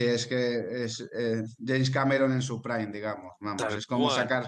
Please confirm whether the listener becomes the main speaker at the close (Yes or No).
No